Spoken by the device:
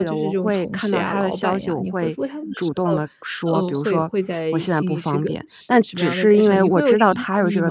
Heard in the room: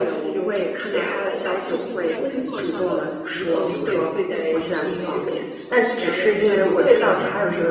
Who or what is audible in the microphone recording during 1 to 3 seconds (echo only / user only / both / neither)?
both